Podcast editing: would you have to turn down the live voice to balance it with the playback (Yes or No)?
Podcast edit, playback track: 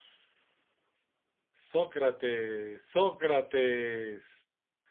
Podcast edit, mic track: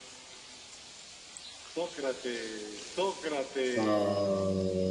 Yes